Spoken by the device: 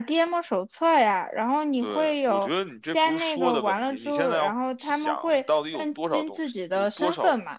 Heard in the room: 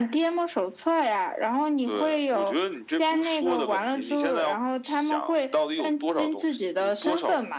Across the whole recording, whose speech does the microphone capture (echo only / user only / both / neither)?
echo only